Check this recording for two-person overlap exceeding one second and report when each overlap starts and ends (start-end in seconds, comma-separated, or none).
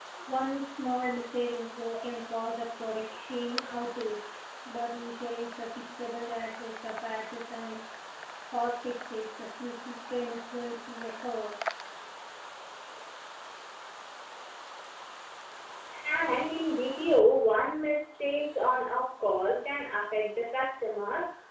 none